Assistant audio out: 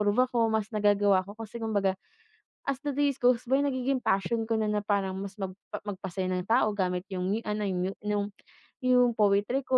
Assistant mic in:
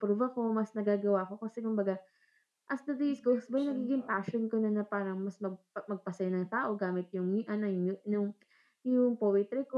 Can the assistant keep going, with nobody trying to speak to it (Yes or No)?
No